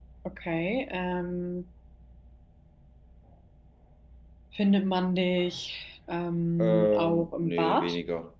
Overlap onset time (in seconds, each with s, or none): 6.6 s